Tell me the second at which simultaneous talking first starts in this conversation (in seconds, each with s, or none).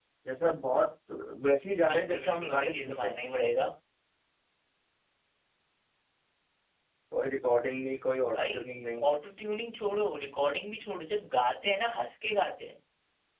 1.9 s